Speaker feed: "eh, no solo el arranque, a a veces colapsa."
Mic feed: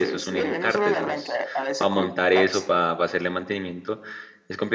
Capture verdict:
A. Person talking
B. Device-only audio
A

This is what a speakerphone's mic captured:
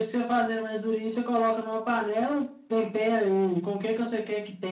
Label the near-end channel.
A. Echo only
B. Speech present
A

